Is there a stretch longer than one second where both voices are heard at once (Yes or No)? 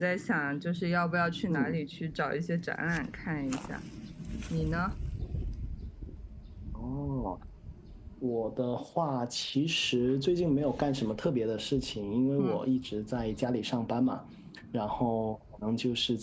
No